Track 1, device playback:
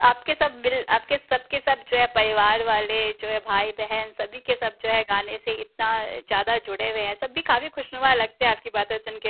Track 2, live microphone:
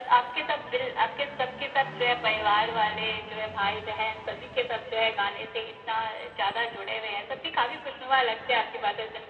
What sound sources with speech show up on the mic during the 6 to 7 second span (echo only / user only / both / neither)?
echo only